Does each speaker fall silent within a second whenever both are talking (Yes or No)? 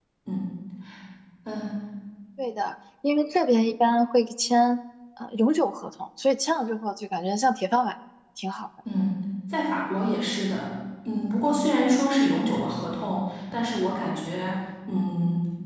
Yes